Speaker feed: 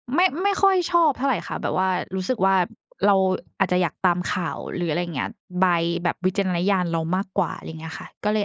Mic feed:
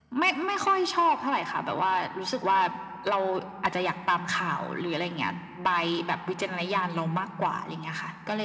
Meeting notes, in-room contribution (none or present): none